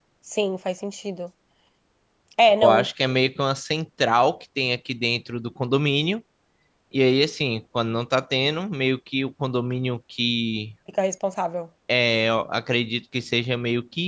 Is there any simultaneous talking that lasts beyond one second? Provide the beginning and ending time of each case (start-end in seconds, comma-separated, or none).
none